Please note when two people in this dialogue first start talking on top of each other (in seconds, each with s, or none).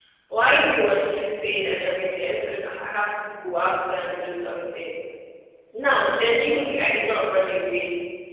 none